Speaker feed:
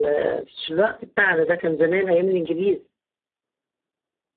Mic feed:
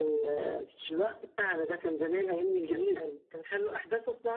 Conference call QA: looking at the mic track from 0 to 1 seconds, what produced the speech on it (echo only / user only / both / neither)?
echo only